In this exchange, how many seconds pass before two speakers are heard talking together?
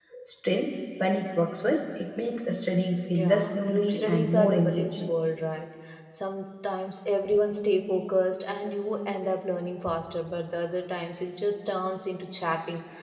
3.1 s

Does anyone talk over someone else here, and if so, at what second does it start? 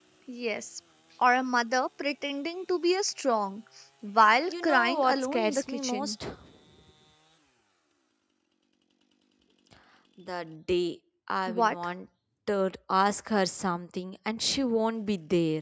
4.5 s

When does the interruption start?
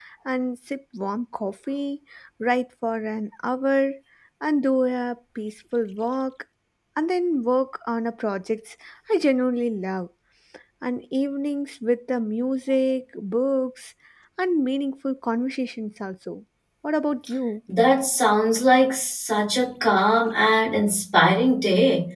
none

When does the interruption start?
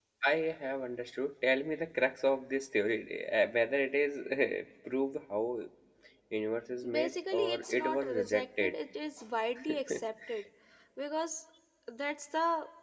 6.9 s

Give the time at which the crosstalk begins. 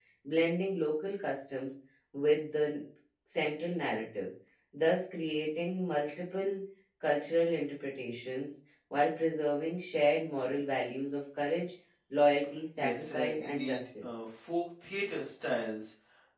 12.8 s

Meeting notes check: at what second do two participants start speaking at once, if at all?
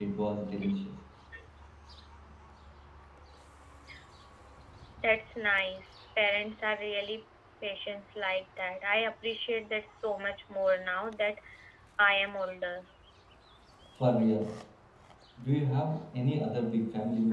none

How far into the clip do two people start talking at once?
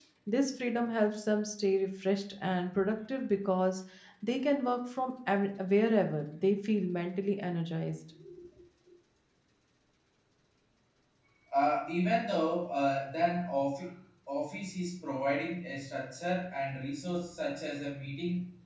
none

